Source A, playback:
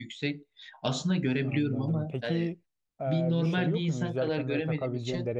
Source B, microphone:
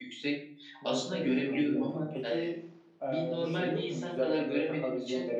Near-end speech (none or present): present